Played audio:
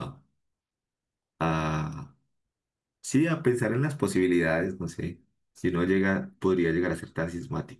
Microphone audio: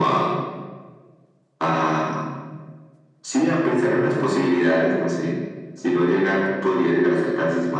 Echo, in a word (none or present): present